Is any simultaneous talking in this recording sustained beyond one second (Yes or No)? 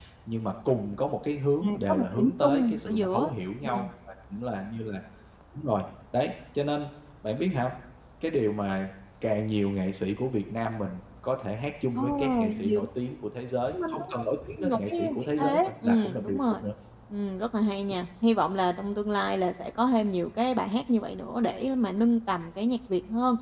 Yes